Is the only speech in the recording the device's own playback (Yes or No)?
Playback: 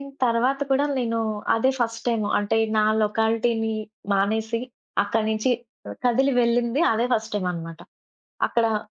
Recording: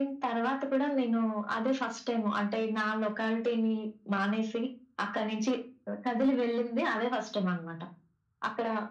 Yes